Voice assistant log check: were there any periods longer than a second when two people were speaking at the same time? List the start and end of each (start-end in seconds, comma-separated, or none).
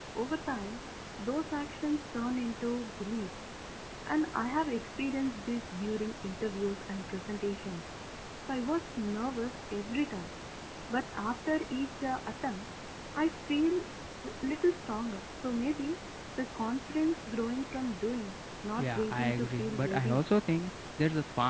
18.8-20.2